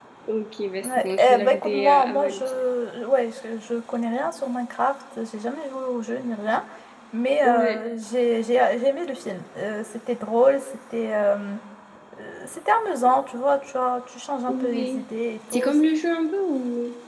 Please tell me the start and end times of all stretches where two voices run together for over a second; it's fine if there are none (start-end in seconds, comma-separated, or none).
0.8-2.5